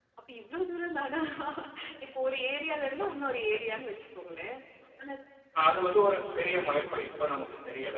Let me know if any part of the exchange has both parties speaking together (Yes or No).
No